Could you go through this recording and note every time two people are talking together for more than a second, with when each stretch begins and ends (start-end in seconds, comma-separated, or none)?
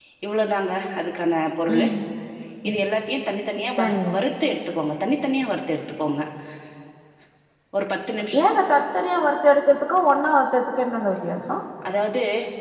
none